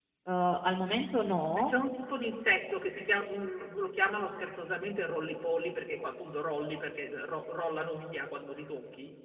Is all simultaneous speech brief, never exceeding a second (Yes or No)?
Yes